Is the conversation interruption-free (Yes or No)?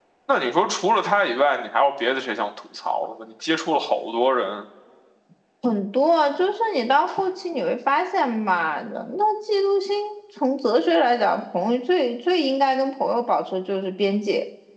Yes